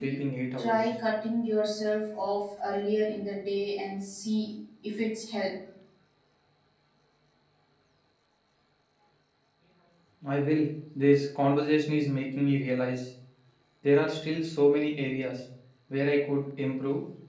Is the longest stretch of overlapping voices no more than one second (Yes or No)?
Yes